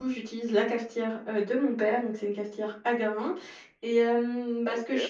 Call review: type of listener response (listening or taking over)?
listening